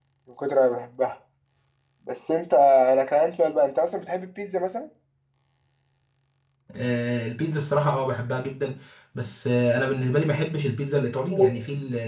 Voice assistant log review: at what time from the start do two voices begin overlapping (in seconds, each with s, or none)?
none